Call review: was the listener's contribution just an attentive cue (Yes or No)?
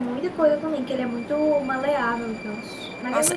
No